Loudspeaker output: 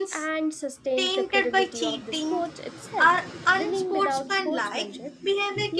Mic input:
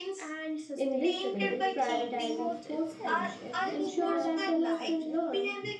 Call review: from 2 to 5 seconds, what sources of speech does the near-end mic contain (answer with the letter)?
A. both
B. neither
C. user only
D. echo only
A